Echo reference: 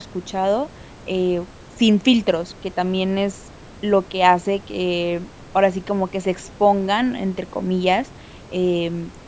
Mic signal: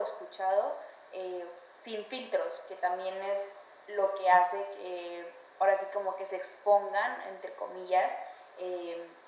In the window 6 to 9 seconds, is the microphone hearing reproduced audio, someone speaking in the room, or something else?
echo only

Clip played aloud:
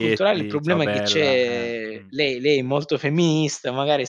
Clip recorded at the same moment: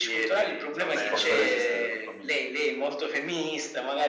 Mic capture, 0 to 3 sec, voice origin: both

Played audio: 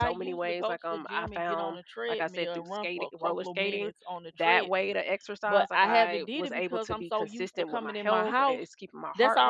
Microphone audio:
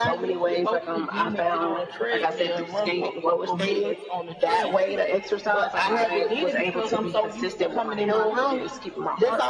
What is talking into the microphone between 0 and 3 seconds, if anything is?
echo only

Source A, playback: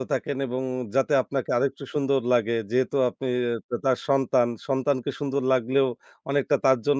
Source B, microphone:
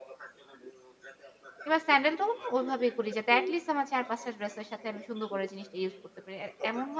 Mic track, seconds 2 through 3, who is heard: both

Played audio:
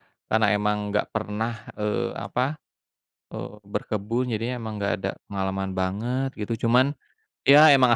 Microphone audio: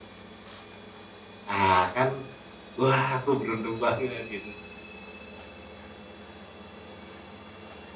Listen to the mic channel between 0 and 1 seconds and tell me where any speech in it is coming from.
neither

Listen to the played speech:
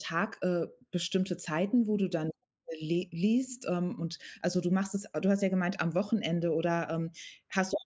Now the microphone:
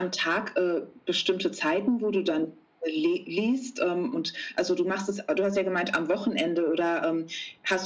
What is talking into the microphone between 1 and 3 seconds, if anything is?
echo only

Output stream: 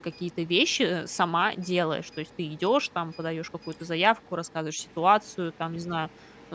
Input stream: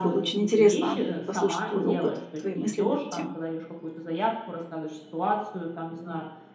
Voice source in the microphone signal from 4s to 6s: echo only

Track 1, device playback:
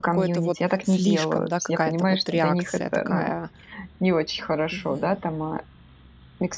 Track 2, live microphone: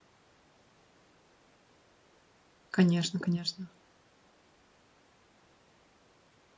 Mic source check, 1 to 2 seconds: neither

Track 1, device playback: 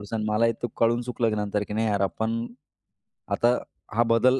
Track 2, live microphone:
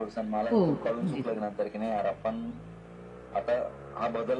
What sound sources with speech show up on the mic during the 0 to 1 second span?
both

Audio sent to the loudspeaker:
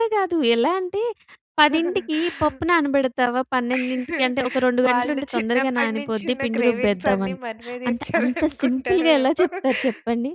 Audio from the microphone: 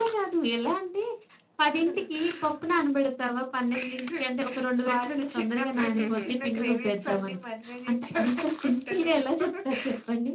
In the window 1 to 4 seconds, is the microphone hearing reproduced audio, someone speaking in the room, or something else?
echo only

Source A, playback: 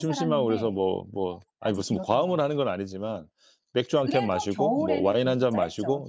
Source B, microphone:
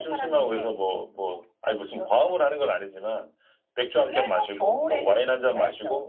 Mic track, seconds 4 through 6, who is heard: echo only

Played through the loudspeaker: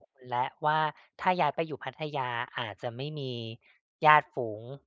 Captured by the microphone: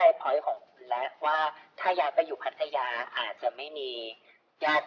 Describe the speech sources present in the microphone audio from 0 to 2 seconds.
echo only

